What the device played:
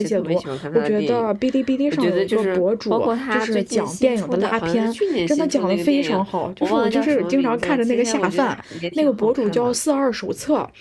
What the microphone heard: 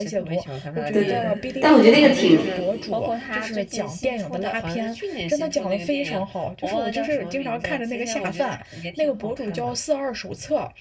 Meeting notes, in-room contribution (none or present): present